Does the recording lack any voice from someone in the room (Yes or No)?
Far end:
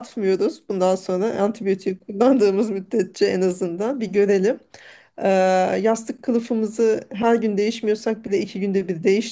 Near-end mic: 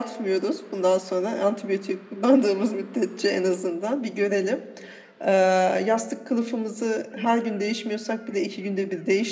Yes